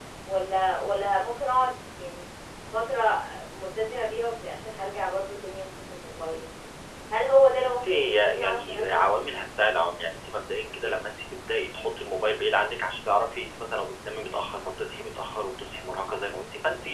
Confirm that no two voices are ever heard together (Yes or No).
No